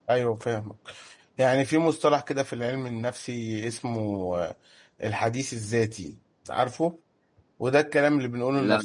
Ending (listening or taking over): listening